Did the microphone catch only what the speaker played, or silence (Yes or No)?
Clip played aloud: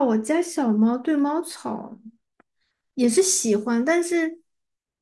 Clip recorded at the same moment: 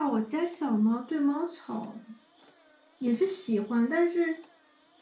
Yes